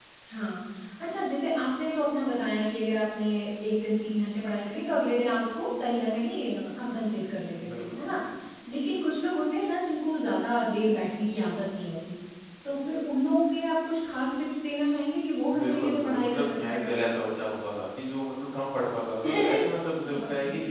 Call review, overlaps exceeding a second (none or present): present